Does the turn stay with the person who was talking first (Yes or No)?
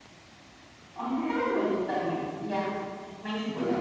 No